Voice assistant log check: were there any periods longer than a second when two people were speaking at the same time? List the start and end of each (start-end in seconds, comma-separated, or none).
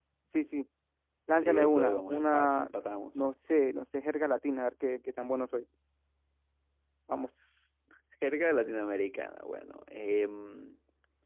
1.4-2.7